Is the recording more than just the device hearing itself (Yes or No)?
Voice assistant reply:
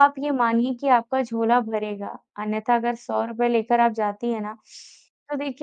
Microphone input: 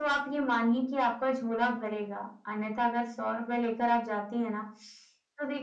No